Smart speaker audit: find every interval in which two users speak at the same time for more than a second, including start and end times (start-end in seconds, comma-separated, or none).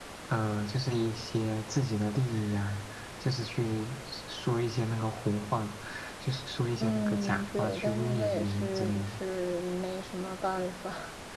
6.8-9.2